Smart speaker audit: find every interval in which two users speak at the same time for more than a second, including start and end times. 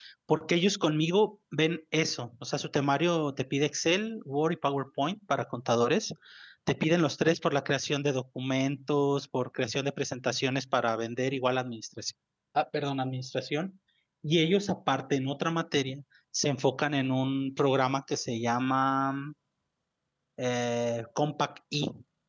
none

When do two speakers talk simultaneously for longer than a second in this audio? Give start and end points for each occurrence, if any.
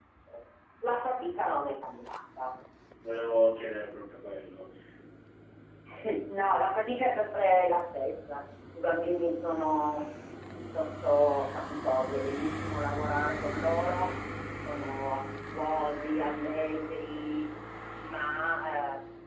none

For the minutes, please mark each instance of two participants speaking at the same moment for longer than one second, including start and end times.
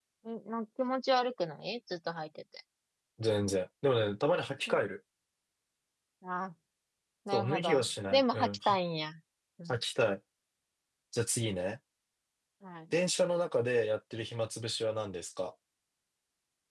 7.3-8.8

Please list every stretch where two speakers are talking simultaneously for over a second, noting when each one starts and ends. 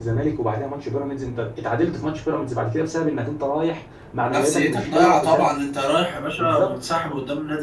4.3-5.5

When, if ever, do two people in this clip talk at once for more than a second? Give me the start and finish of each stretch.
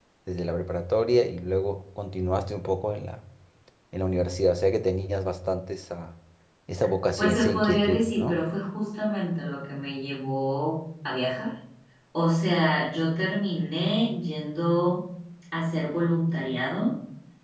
7.2-8.4

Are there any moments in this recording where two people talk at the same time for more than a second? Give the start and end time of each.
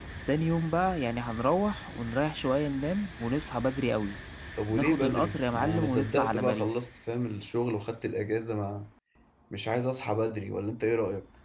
4.7-6.7

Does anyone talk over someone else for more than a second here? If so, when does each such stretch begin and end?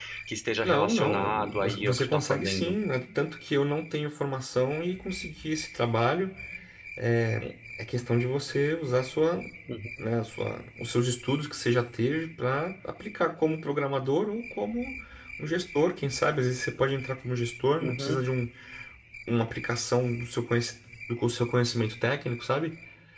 0.6-2.8

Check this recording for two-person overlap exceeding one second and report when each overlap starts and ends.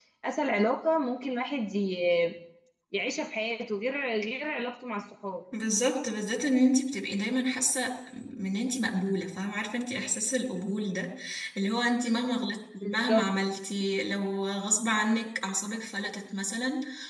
none

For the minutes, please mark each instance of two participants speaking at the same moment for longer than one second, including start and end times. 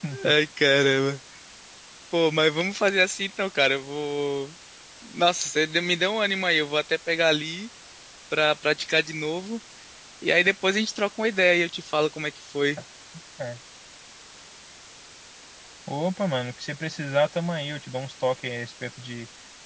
none

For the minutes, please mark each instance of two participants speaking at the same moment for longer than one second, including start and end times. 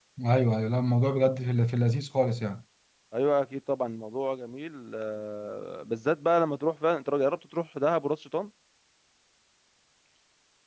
none

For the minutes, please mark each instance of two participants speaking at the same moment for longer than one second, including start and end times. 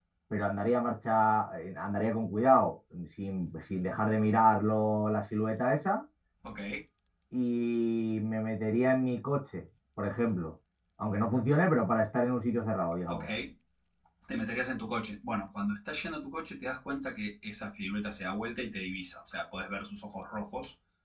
none

